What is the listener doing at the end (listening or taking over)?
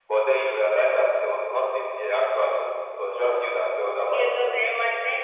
taking over